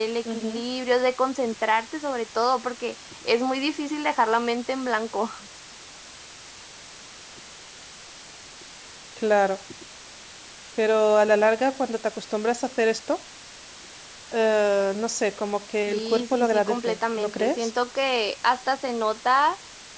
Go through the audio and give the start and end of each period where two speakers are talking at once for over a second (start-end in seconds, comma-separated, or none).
15.9-17.7